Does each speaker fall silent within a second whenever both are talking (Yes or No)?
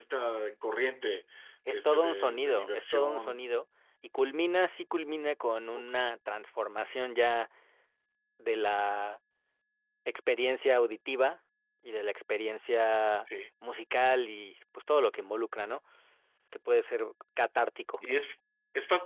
No